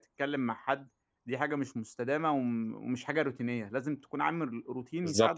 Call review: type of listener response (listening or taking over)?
taking over